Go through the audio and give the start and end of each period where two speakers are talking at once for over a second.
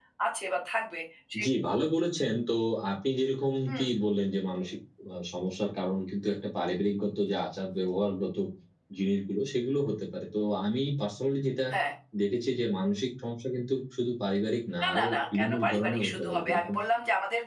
14.8-16.7

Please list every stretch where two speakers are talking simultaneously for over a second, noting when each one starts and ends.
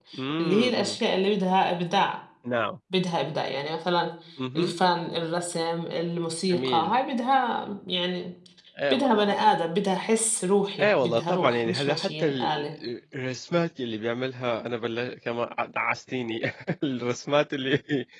10.8-12.7

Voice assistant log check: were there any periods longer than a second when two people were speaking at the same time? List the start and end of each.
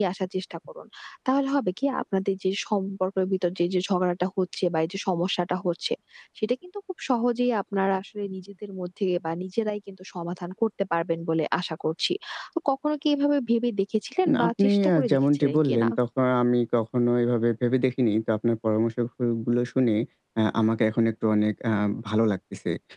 14.3-15.9

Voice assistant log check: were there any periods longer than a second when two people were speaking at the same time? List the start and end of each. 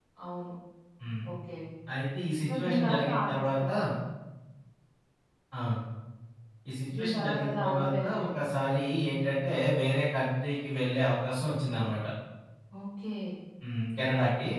2.5-3.7, 7.0-8.3

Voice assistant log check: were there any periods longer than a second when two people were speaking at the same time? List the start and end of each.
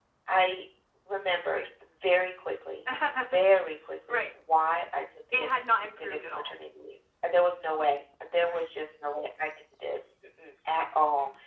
5.3-6.5

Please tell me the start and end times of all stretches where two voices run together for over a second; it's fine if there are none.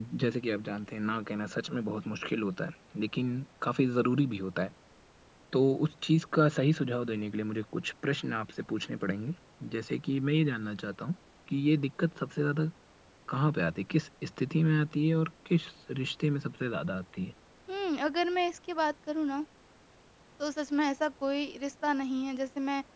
none

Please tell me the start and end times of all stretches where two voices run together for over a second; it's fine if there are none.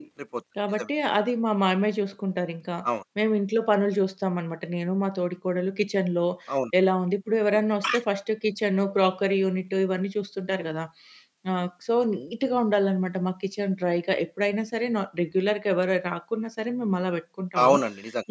none

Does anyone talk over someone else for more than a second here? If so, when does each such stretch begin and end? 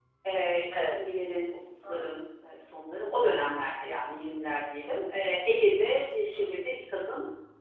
none

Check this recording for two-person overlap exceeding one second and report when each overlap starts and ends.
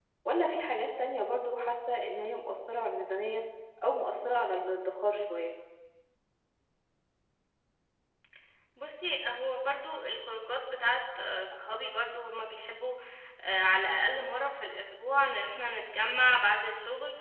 none

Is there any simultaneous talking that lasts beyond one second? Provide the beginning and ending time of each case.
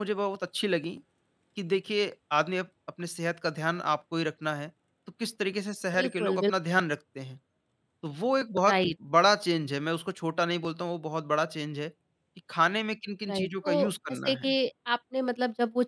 13.3-14.5

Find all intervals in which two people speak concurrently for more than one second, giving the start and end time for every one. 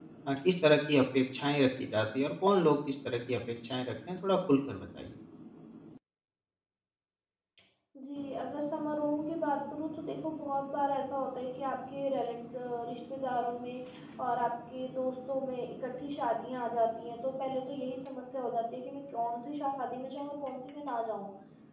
none

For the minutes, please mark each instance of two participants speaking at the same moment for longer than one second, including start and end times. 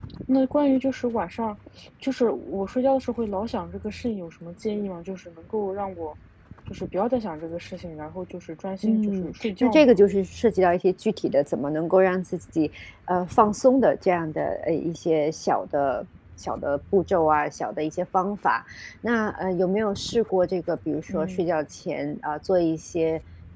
8.8-10.0

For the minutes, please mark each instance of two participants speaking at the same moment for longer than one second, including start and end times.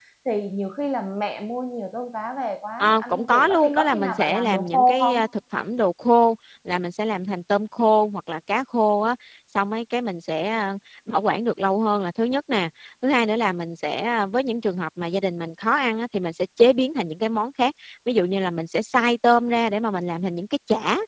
2.8-5.2

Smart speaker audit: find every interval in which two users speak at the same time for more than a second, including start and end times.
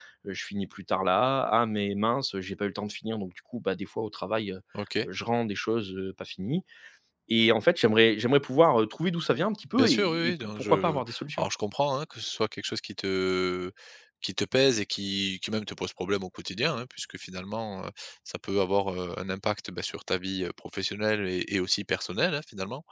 9.7-11.0

